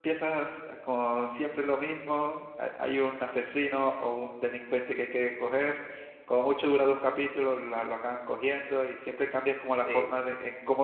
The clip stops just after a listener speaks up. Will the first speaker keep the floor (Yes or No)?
Yes